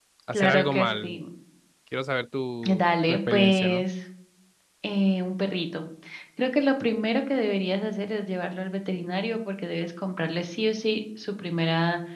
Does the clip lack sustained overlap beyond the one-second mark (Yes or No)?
No